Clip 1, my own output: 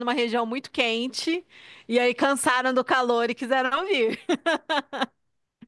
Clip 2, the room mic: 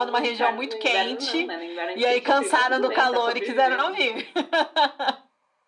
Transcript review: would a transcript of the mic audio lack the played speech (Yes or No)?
No